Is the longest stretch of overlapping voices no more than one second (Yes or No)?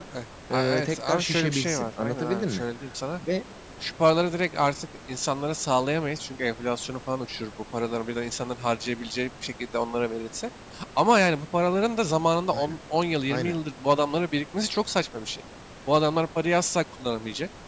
No